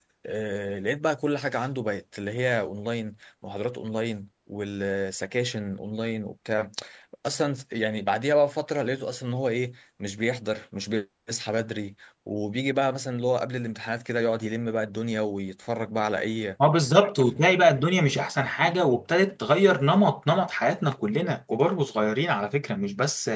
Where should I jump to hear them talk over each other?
none

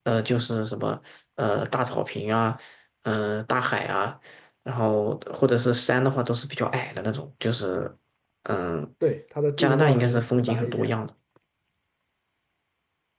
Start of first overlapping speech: 9.6 s

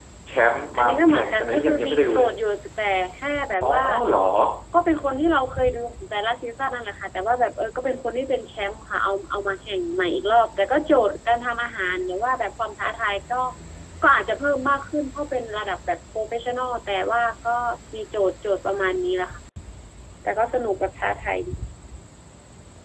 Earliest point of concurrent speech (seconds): 0.8 s

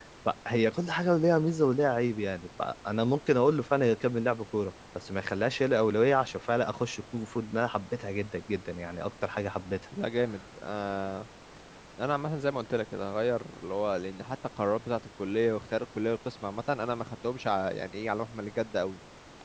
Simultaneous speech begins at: none

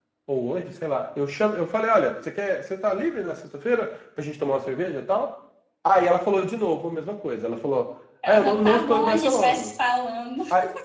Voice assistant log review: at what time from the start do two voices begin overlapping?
8.2 s

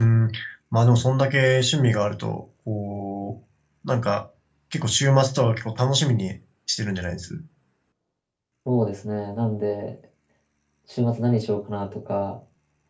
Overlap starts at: none

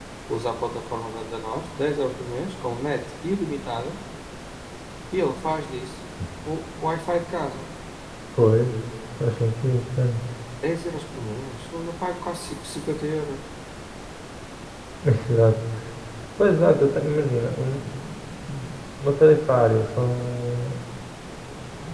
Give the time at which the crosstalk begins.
none

